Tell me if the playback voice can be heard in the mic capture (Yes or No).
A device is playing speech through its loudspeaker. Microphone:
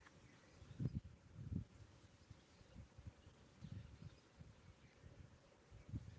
No